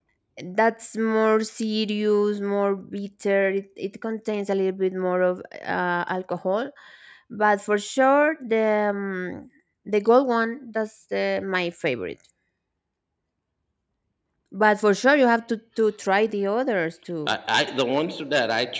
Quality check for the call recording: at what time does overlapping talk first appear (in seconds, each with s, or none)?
none